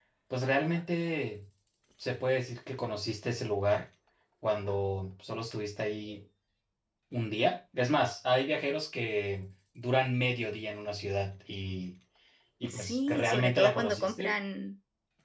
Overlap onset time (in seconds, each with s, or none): 12.7 s